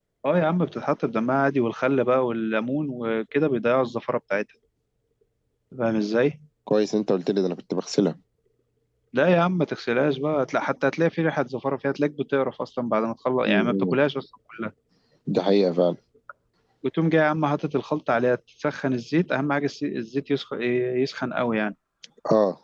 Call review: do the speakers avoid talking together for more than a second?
Yes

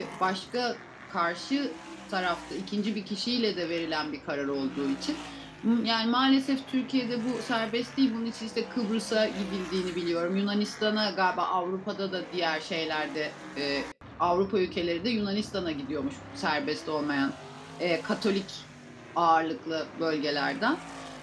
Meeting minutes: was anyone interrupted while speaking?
No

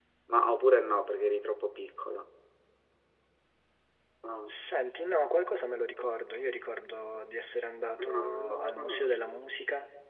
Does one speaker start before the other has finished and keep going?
Yes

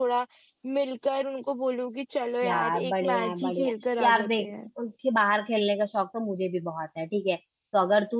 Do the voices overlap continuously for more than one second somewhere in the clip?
Yes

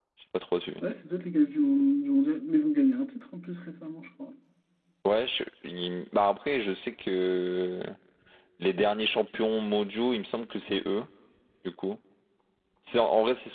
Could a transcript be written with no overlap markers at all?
Yes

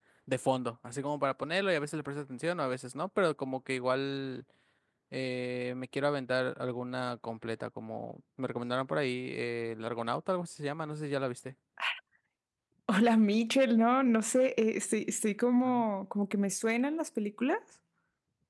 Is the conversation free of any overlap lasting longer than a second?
Yes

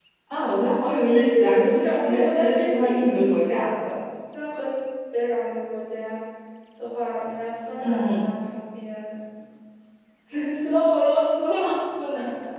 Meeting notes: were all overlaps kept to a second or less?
No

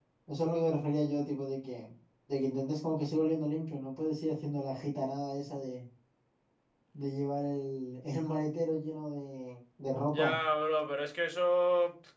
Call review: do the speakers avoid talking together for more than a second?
Yes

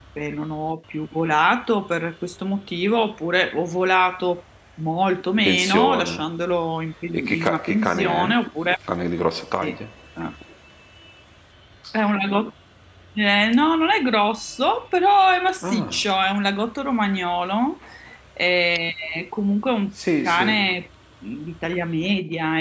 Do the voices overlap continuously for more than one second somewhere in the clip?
Yes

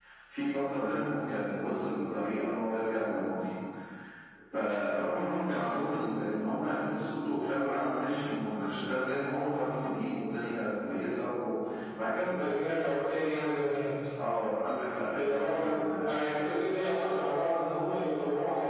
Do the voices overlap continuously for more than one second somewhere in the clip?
Yes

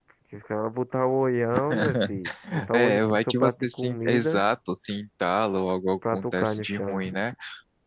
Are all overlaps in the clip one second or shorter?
No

